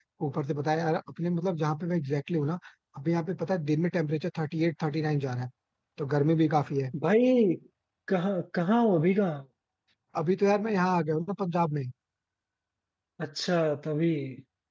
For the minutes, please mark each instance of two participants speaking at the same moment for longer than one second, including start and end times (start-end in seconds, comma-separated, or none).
none